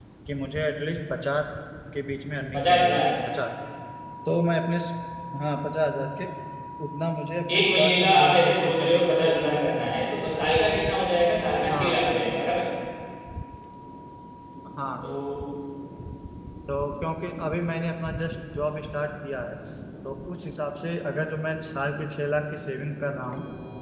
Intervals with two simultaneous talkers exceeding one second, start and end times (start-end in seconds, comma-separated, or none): 7.5-9.7